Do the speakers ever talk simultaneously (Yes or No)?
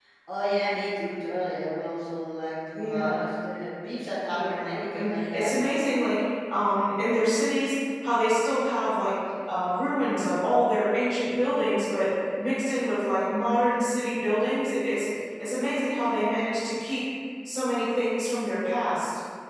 Yes